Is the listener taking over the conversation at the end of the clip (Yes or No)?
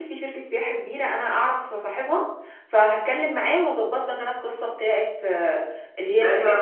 Yes